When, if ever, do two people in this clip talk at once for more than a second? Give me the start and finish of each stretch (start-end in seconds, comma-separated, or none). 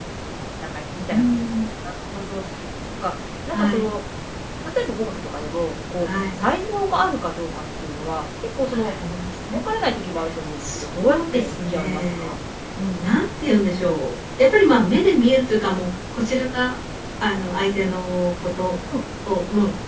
10.6-12.3